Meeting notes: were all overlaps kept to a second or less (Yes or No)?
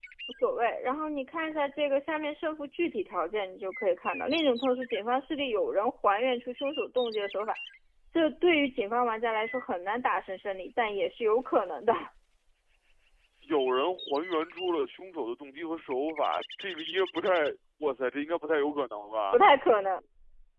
Yes